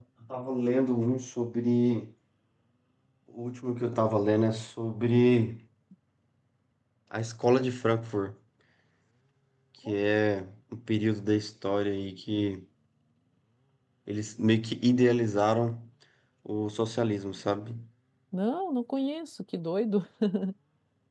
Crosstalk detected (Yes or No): No